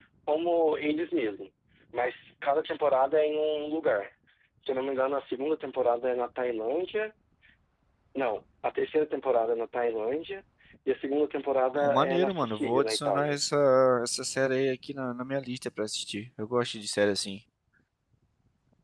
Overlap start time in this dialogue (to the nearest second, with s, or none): 12 s